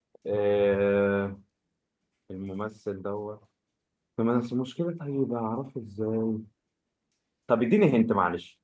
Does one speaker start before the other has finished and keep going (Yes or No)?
No